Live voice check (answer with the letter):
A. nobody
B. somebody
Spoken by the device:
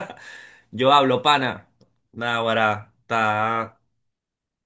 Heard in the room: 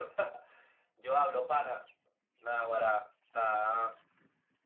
A